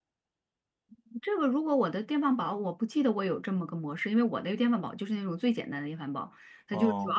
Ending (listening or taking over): listening